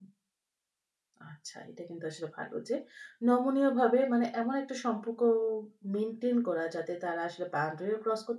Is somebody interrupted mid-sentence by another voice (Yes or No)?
No